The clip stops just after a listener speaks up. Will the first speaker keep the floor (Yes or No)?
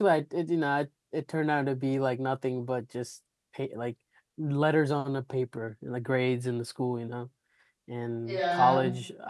Yes